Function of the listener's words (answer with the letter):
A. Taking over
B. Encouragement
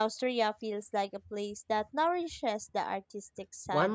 A